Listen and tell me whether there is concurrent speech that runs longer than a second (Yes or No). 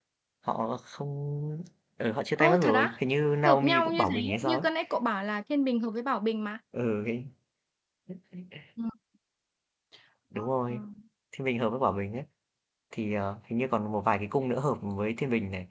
Yes